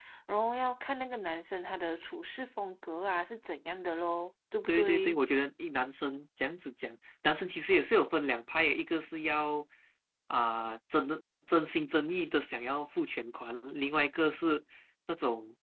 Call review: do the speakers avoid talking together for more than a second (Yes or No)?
Yes